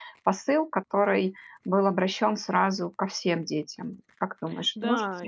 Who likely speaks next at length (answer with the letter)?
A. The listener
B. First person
A